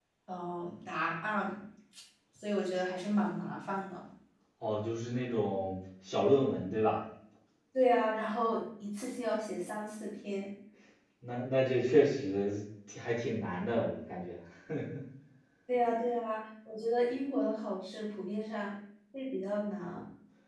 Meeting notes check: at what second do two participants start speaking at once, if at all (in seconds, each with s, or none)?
none